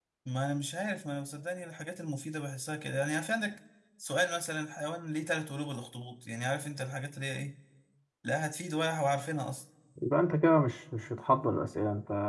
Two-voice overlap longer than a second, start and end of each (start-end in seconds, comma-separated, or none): none